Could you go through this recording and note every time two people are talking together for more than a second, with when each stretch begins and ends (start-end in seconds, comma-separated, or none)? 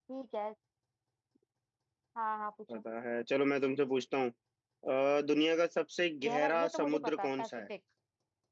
6.2-7.5